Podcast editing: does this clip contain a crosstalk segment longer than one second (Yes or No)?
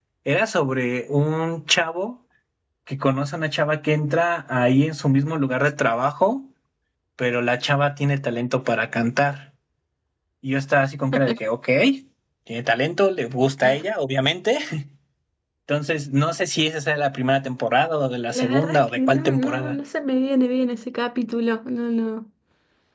Yes